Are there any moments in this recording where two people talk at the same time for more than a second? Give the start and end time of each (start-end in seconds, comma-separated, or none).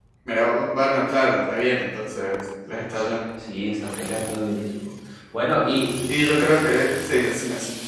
none